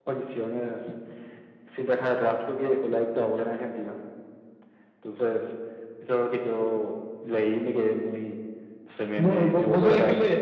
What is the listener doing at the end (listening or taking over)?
taking over